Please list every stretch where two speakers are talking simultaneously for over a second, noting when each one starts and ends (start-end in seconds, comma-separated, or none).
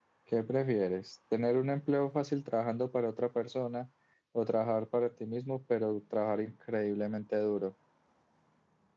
none